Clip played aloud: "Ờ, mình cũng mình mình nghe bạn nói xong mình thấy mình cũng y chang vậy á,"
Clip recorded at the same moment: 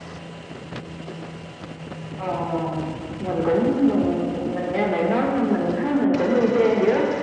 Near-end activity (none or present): none